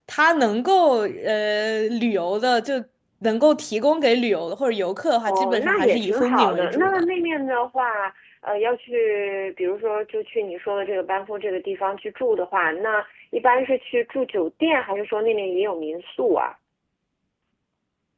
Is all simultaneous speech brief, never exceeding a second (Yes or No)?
No